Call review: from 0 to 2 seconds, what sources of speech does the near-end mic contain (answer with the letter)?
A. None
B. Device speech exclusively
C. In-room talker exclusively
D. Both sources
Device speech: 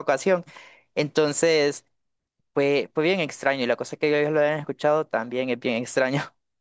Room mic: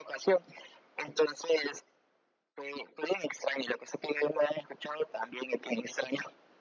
B